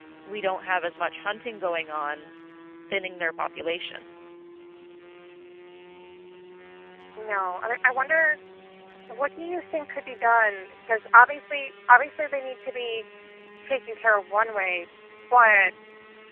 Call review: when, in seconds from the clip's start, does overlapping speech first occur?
none

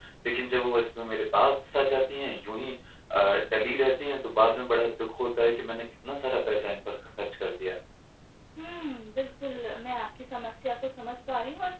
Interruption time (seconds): none

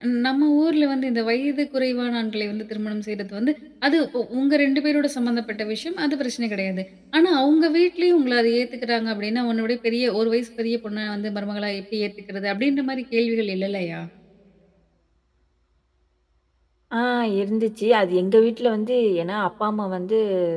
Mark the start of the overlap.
none

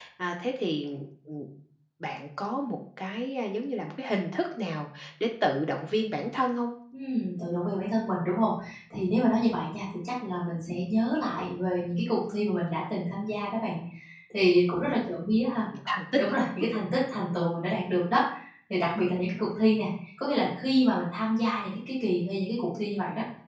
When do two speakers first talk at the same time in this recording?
none

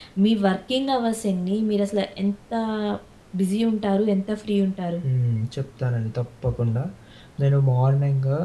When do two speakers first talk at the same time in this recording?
none

